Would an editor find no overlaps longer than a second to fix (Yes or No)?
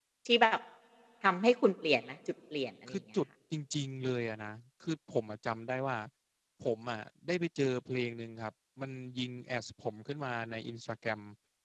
Yes